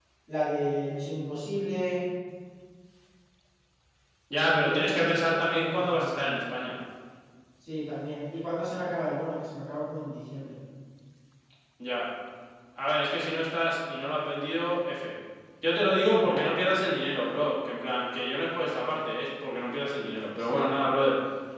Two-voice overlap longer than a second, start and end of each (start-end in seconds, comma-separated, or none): 4.4-6.2